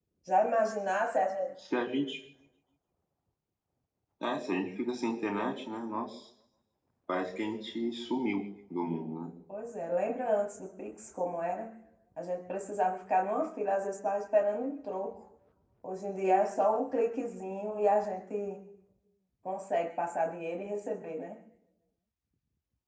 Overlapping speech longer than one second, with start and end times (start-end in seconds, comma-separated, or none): none